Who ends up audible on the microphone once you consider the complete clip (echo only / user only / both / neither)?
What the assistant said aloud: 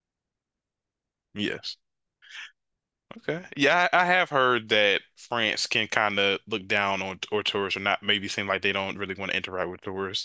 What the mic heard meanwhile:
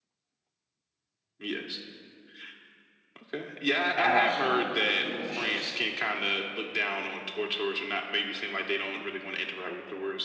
both